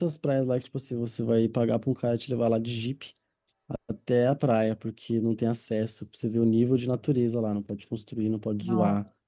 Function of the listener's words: listening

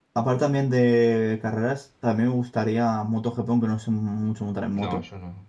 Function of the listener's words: taking over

